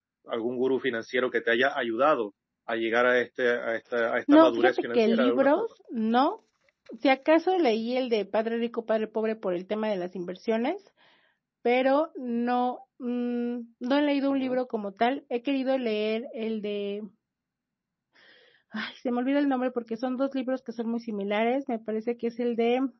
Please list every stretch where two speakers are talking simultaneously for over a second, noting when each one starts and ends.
4.3-5.6

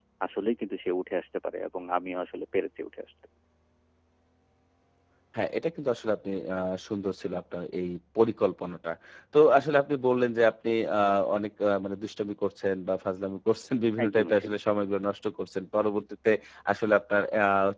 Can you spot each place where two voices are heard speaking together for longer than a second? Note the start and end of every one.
none

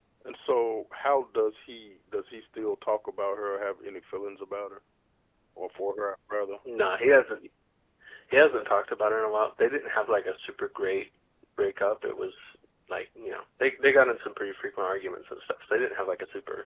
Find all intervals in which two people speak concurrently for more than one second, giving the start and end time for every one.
none

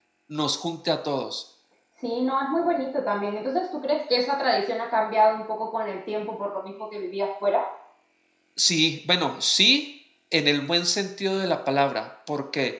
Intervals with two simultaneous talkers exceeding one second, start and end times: none

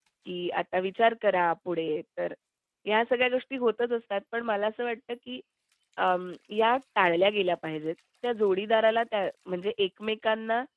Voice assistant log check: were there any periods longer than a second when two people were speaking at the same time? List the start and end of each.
none

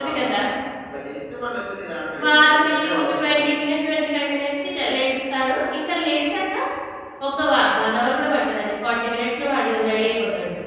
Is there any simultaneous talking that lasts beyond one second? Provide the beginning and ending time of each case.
2.2-3.6

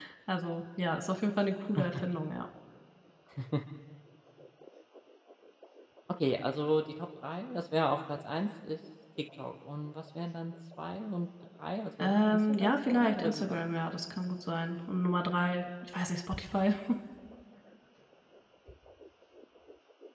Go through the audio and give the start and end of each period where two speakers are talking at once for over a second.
12.0-13.6

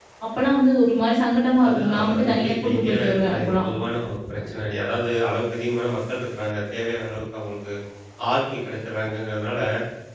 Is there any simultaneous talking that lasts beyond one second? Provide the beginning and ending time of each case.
1.7-3.6

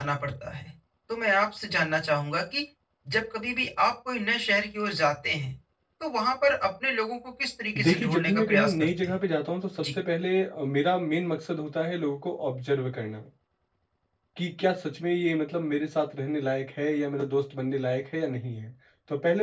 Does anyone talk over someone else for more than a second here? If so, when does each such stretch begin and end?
7.8-9.2

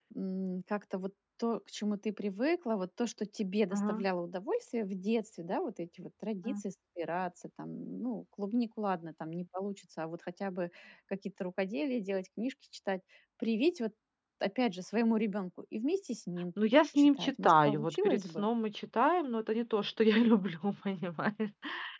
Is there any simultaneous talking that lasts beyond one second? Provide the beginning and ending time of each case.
17.0-18.4

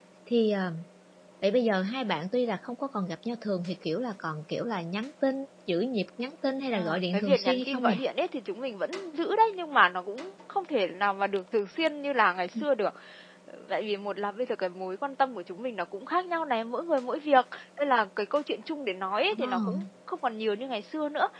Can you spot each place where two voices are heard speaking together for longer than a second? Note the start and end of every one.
6.8-8.0

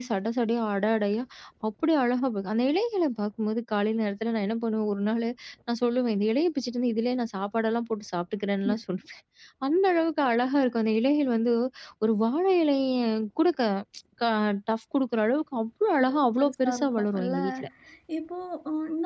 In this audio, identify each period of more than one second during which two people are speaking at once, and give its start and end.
16.0-17.4

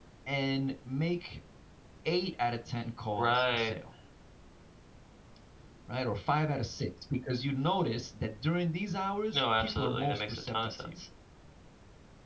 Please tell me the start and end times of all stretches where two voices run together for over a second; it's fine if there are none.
9.3-10.9

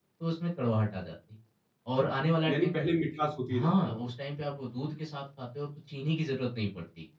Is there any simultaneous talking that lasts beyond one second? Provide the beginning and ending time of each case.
none

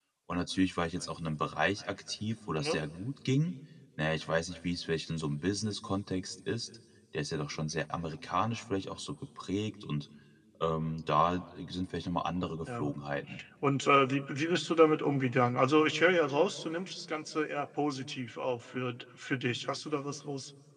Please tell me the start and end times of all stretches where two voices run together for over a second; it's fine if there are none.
none

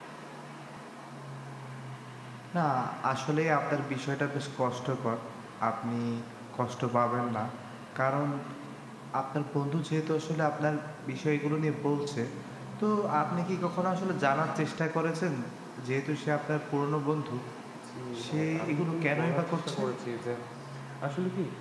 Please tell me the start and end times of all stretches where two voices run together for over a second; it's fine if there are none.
18.2-19.8

